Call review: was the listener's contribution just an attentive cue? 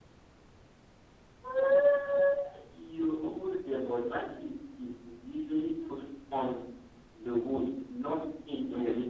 No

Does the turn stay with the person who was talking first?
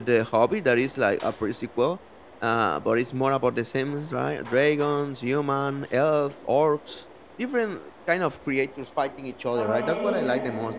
Yes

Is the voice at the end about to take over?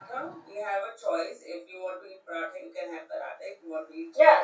Yes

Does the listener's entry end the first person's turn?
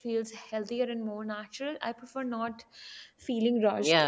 Yes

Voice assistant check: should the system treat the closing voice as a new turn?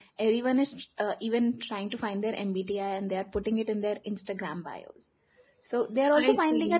No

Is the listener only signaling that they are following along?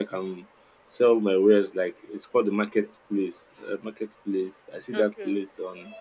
Yes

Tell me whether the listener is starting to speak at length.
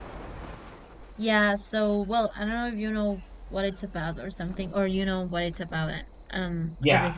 Yes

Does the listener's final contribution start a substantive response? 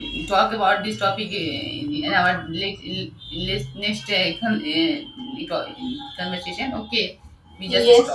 Yes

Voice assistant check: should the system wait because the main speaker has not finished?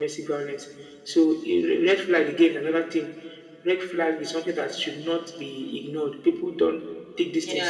No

